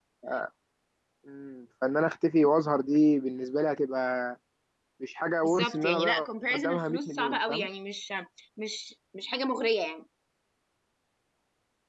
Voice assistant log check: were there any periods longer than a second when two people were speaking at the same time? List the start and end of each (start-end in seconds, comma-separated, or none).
5.4-7.7